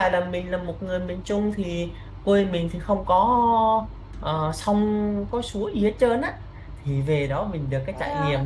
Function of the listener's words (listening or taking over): listening